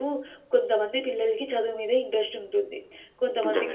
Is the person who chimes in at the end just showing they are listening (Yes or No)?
Yes